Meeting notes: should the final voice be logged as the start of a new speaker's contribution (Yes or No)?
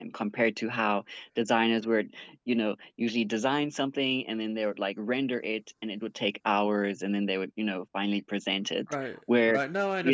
Yes